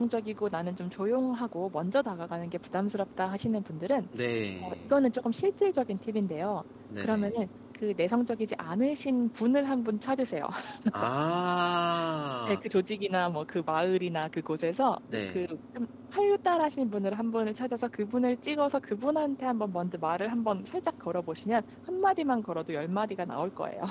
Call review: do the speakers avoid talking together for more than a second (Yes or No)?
Yes